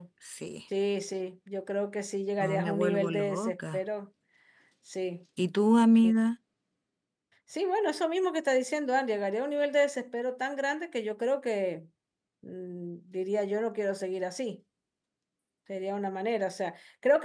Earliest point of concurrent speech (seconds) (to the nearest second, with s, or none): 2 s